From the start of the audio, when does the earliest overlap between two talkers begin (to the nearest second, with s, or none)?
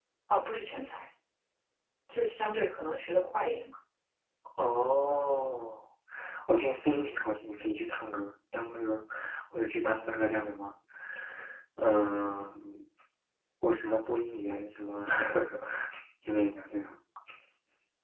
none